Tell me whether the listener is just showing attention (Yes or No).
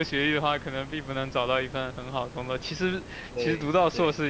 Yes